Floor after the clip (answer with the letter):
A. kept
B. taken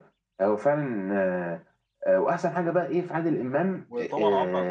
B